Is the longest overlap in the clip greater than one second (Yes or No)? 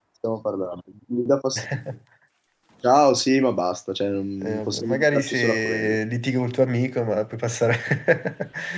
Yes